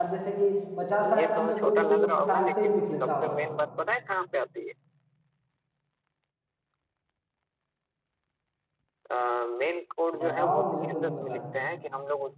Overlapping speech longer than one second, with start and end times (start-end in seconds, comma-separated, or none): 1.2-3.4, 10.2-11.4